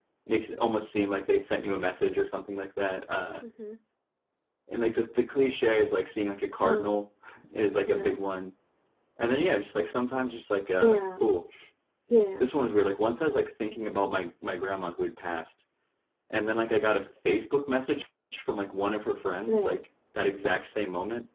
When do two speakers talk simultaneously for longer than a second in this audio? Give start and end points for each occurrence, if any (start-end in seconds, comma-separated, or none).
none